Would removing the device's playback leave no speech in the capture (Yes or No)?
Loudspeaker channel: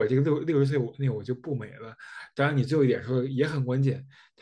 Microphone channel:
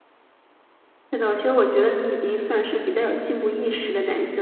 No